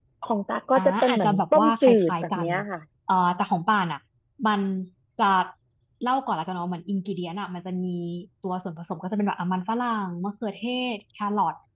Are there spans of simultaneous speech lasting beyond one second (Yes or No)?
Yes